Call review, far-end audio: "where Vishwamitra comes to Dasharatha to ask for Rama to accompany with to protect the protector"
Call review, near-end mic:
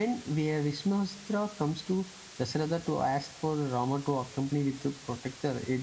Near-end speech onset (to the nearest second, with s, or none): none